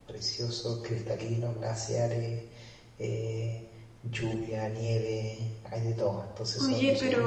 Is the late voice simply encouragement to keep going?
No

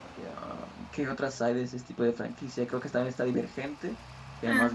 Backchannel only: Yes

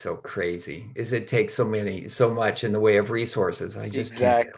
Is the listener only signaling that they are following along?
No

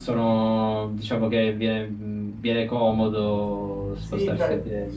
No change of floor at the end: No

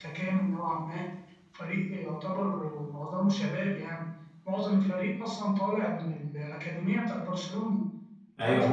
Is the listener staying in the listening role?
No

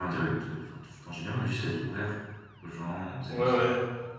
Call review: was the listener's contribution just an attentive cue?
No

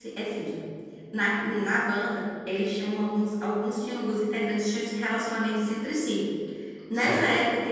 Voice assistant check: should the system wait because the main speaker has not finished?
Yes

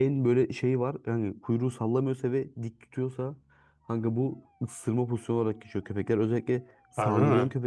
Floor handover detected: No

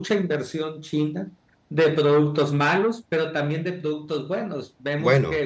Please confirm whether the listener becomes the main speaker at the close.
No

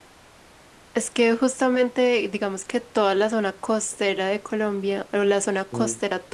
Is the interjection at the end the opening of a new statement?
No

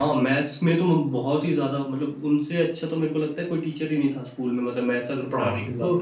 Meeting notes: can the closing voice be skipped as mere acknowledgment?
No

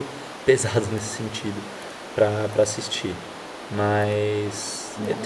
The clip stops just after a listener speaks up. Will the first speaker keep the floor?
No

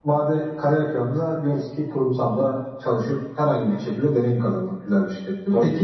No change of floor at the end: Yes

